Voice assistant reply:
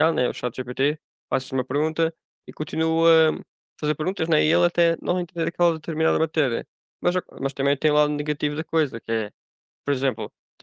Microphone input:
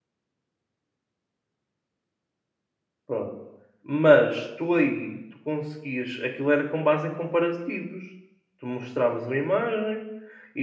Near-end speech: present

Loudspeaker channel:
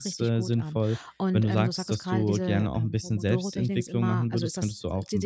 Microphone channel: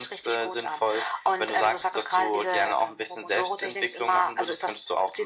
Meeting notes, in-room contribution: none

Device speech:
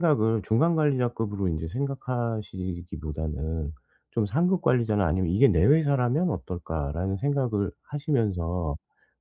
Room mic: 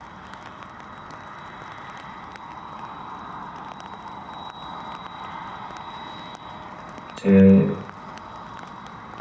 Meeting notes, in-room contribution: present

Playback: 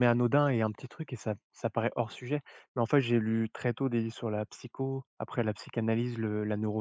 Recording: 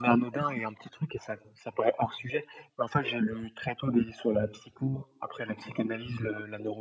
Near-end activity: none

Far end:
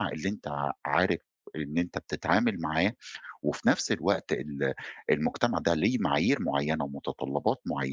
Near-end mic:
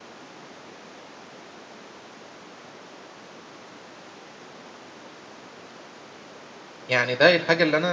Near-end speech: present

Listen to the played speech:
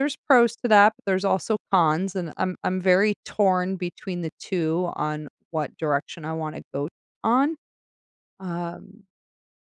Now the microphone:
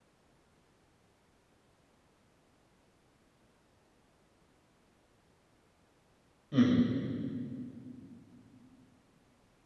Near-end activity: present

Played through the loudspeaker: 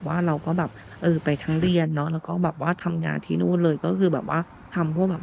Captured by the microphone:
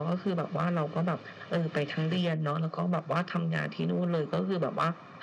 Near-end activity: none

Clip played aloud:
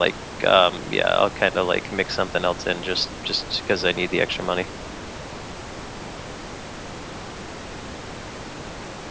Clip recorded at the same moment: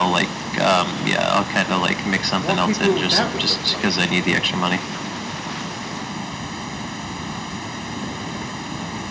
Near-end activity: present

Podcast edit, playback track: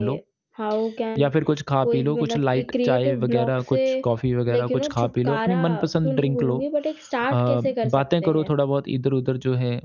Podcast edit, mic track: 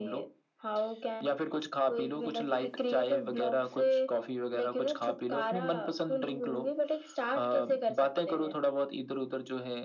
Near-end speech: none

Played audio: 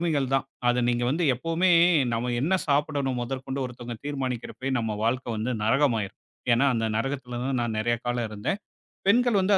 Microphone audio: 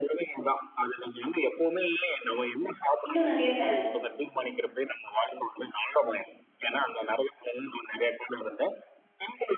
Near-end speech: present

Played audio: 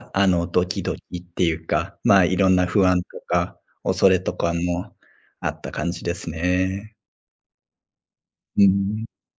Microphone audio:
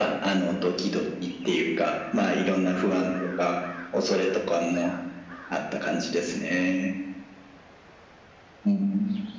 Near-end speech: none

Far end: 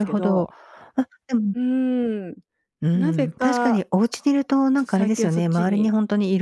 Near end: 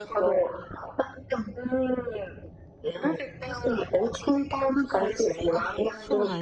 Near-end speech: present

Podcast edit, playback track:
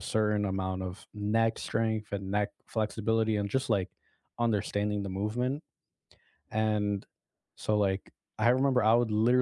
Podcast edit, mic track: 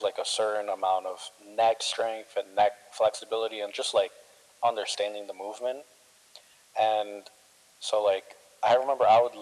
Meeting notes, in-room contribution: none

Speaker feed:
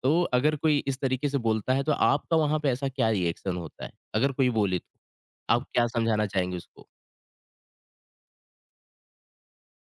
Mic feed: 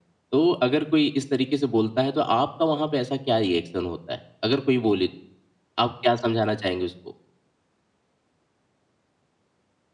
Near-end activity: none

